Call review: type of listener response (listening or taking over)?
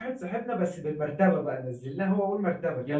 listening